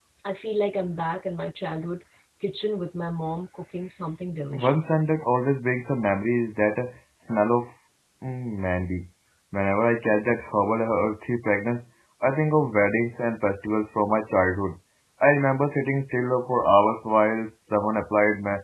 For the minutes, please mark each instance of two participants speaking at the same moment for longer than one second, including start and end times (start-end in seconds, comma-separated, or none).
none